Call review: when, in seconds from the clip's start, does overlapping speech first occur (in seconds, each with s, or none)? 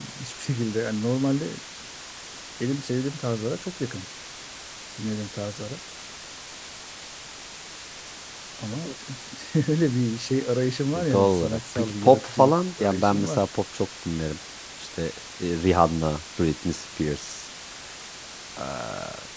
10.9 s